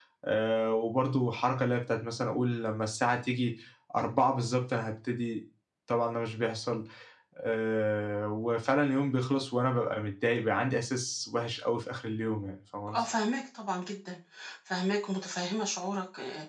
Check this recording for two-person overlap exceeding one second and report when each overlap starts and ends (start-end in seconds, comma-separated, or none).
none